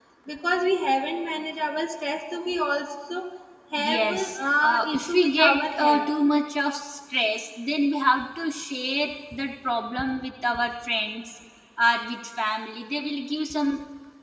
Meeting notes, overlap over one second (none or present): present